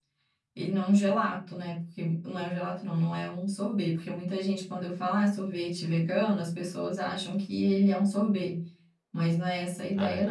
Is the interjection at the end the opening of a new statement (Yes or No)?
Yes